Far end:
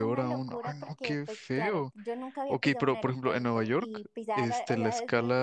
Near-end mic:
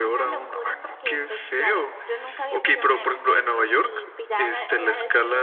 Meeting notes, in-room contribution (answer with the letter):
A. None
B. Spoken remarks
A